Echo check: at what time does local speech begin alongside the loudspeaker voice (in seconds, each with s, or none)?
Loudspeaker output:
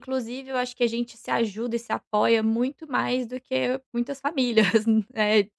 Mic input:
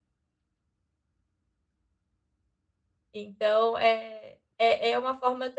3.1 s